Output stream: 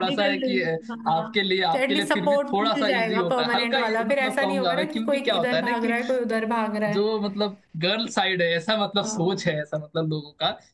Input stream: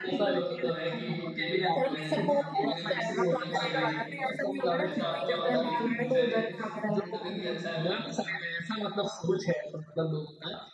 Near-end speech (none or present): present